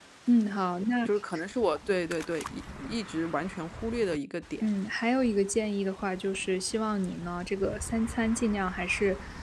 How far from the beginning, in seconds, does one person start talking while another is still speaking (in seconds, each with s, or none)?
none